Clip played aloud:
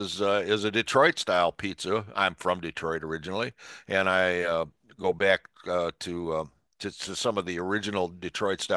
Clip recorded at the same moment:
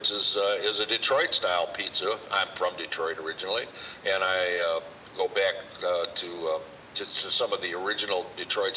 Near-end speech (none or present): none